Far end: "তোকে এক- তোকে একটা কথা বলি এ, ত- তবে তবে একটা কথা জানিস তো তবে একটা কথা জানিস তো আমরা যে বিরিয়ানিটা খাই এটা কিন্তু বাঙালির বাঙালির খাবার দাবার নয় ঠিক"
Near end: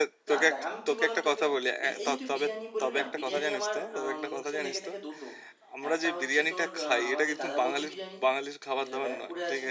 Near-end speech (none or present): present